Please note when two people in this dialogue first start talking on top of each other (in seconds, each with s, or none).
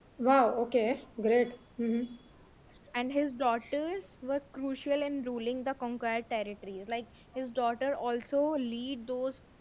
none